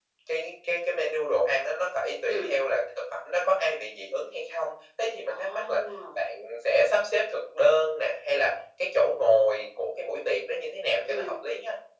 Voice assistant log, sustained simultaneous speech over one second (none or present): none